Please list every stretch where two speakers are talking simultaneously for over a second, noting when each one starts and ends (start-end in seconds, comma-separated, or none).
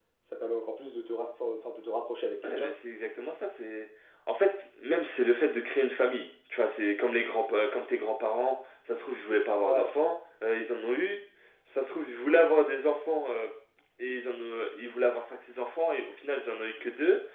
none